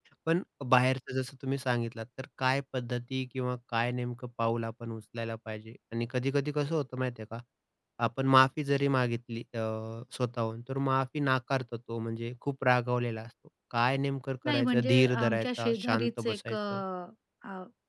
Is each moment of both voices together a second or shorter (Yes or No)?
No